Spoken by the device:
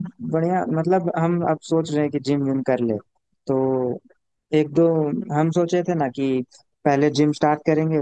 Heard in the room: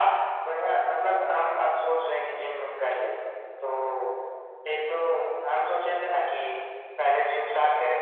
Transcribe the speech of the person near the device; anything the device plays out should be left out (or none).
none